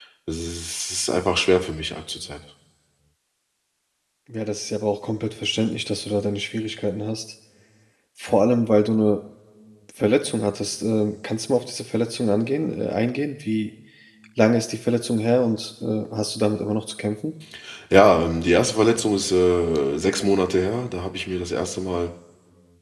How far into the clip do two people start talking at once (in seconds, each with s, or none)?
none